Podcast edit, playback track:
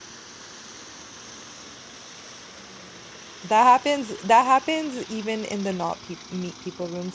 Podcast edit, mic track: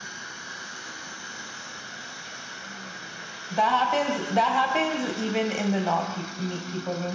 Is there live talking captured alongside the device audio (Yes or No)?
No